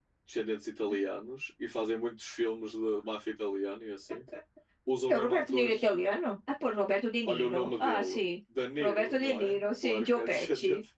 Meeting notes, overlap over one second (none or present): present